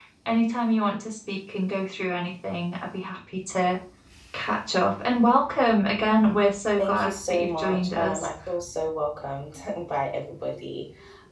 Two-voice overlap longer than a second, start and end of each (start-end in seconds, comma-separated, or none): 6.8-8.3